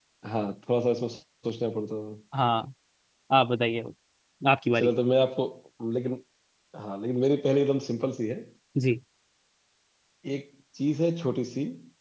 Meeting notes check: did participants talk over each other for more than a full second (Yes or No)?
No